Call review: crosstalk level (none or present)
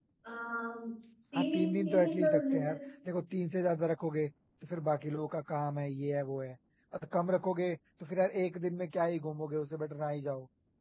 present